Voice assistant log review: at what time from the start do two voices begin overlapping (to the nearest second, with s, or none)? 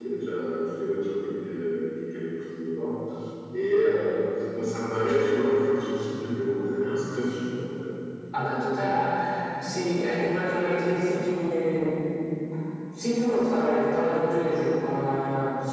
none